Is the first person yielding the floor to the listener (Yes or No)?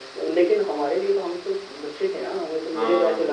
No